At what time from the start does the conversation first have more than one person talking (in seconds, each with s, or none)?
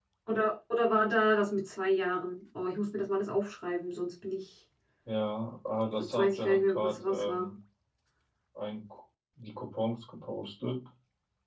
6.0 s